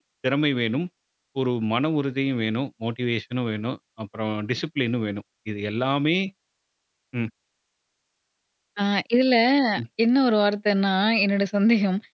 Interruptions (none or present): none